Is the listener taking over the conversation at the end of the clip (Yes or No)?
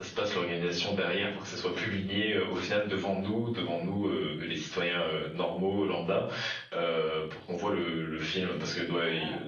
Yes